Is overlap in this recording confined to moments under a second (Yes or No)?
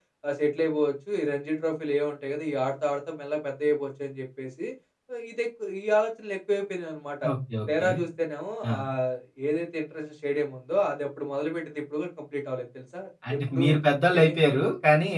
Yes